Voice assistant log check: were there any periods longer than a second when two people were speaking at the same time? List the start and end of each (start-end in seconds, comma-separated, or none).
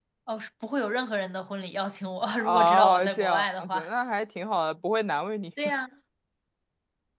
2.4-3.9